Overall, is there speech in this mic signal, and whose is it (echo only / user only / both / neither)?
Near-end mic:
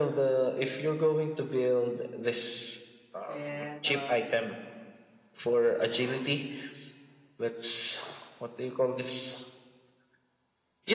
both